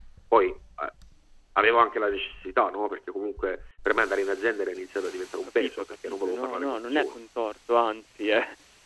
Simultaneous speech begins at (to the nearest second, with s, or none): 6 s